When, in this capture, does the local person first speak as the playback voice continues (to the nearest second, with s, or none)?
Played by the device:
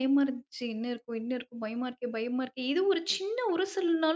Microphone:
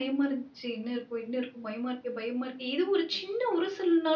none